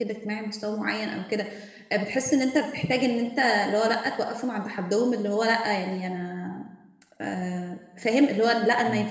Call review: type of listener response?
listening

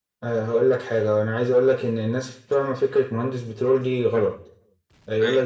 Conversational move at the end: listening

